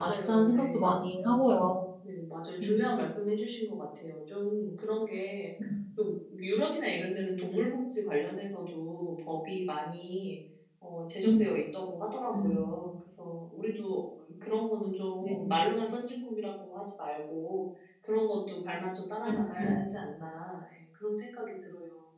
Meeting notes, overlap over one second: present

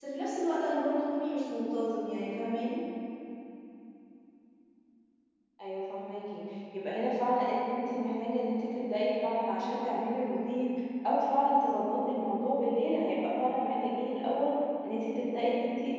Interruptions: none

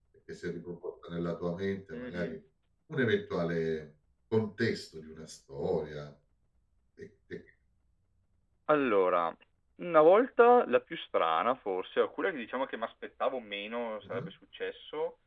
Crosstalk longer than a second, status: none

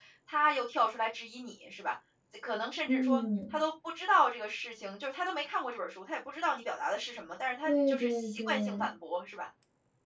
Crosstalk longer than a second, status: present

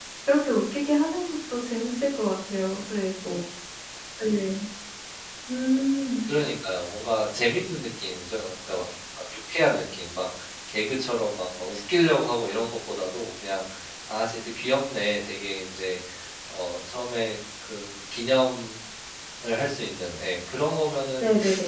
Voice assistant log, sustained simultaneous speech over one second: none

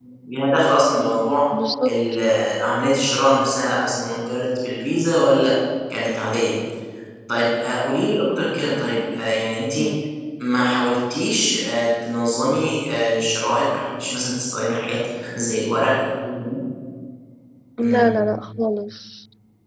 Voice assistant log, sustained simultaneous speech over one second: none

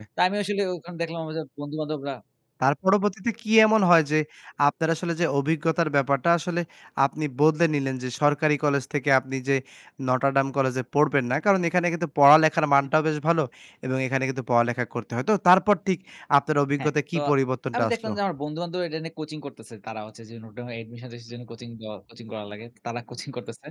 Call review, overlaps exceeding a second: none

